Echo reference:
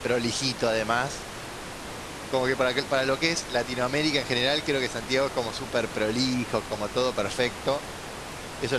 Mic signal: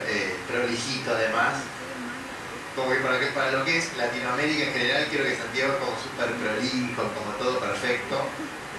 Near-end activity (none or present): present